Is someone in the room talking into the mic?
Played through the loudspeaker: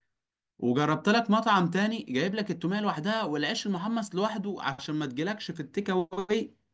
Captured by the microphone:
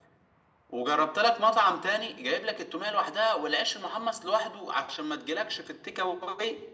No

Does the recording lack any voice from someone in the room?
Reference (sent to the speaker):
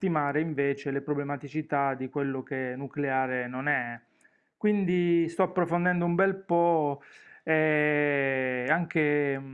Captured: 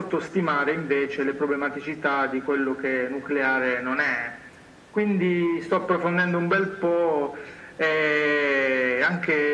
Yes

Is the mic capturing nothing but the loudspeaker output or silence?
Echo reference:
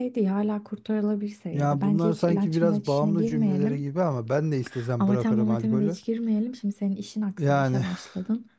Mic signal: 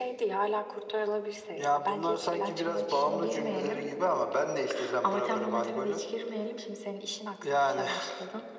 Yes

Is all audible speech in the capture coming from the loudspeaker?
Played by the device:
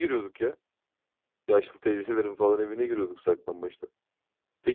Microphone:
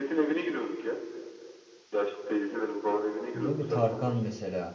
No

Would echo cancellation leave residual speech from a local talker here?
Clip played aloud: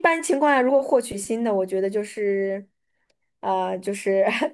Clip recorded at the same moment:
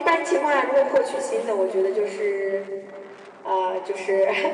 No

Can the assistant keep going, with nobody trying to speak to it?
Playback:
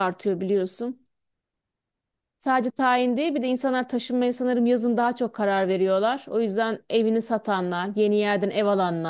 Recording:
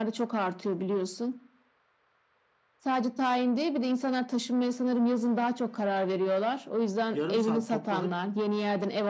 No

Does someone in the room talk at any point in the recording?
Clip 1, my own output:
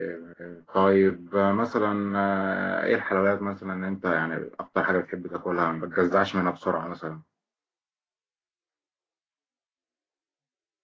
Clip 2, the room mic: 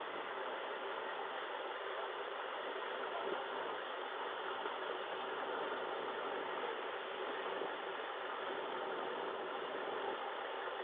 No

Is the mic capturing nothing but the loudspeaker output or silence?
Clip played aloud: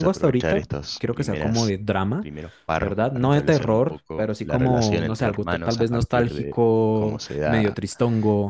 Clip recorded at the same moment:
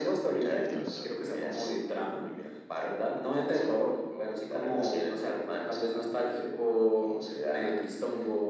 No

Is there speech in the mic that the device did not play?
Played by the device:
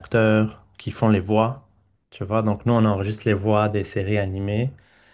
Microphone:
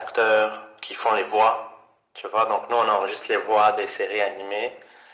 No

